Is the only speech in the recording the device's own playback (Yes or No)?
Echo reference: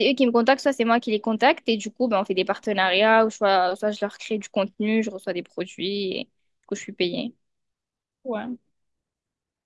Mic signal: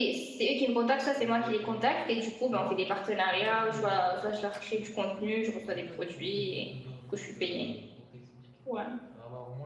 No